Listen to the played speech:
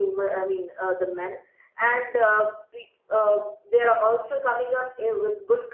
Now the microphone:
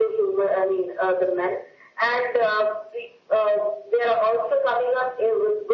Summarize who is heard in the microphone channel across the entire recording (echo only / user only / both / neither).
echo only